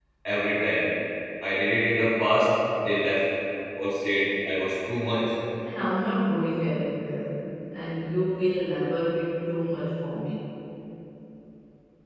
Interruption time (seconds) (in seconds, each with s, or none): none